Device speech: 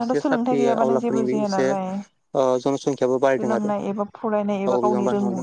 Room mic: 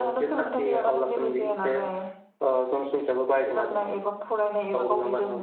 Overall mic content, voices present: echo only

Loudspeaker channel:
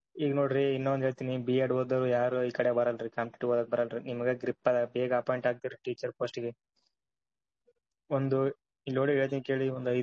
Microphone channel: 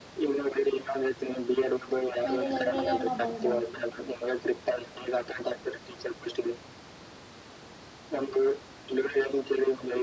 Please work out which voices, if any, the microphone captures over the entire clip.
both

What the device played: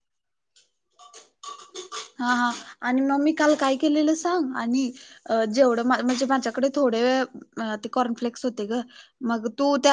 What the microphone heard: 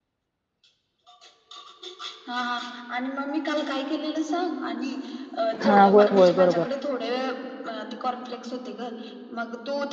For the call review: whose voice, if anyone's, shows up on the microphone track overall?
both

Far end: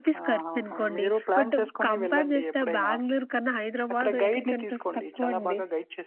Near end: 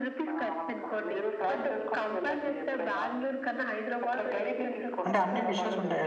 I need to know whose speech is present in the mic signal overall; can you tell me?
both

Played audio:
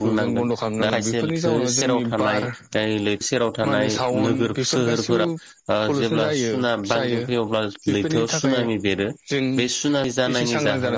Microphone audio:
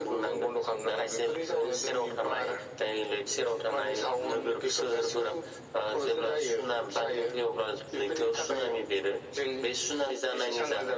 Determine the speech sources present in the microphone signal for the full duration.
echo only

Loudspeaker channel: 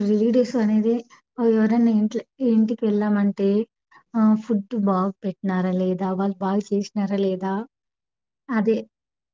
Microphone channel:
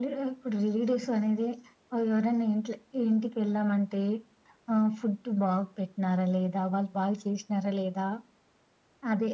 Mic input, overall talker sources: echo only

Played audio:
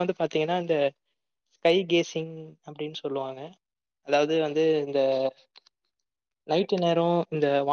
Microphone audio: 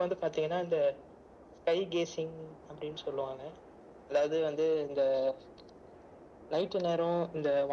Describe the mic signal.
echo only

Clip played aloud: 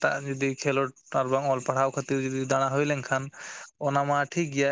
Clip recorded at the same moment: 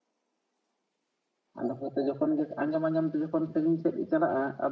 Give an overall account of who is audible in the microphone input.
user only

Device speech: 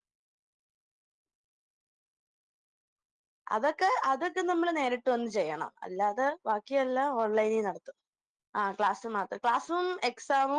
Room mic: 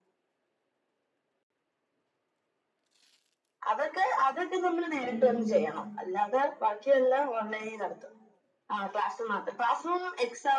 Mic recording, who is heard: both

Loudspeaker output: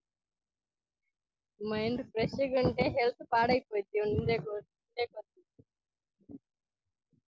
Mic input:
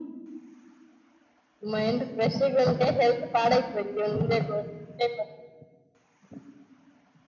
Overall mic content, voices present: echo only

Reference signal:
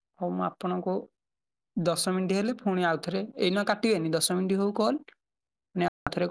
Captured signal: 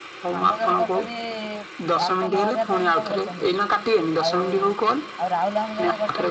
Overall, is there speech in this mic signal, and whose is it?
both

